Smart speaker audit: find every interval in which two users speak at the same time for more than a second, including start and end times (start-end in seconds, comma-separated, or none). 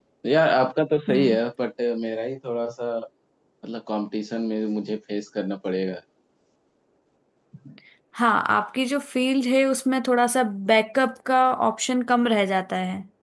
none